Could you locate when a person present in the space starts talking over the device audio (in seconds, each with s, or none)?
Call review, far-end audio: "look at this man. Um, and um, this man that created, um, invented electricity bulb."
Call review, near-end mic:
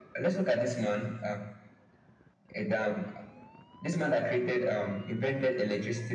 none